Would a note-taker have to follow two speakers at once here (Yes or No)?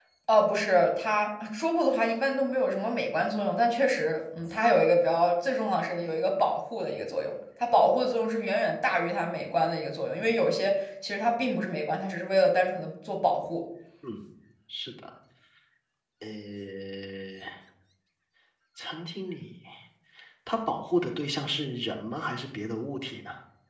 No